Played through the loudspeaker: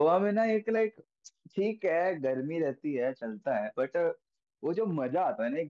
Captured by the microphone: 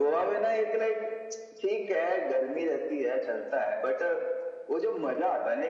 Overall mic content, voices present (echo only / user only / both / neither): echo only